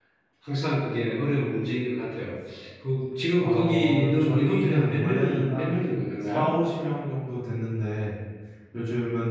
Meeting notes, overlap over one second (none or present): present